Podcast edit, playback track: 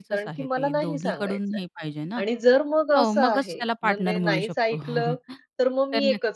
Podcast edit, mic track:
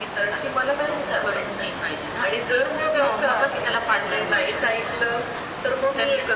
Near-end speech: none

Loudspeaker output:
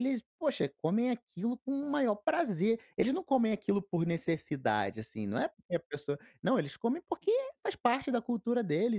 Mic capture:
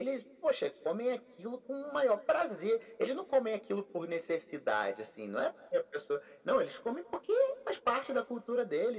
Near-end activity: none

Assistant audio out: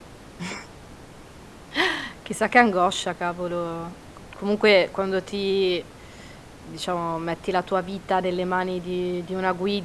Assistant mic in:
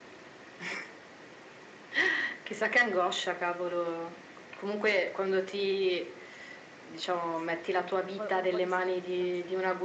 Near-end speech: present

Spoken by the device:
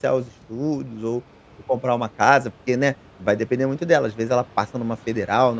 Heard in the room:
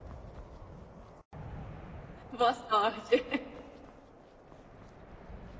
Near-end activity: present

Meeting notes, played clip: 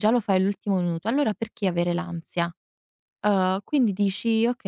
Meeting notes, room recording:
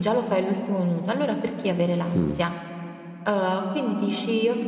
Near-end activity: present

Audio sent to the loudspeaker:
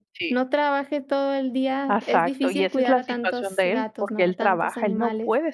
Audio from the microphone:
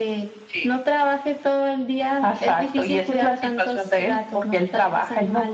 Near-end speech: none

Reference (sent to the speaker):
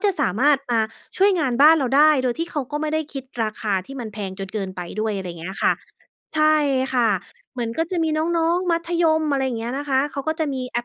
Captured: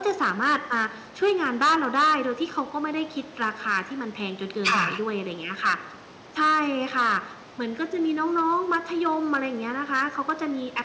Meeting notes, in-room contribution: present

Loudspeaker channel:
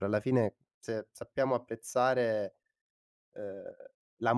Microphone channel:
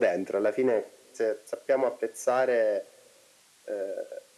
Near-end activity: none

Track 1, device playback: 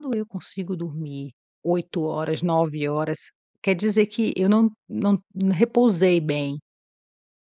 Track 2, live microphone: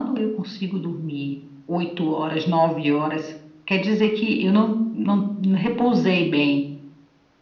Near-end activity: none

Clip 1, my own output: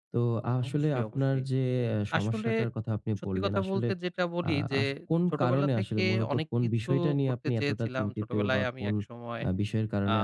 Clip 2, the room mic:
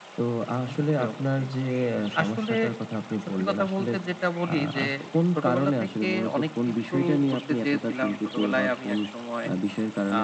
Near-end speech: none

